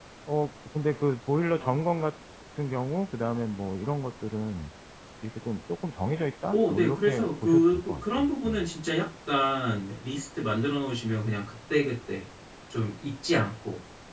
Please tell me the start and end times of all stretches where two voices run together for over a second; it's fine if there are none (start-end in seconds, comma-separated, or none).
6.5-8.7